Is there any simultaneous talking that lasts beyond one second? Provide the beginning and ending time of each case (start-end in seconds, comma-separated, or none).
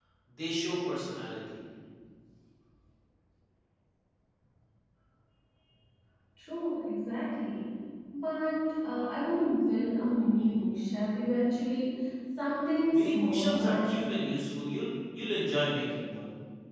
12.9-14.2